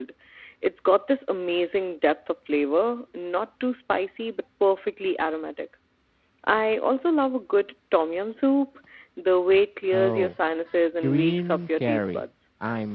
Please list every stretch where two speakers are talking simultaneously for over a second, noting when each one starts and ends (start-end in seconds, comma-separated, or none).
11.0-12.2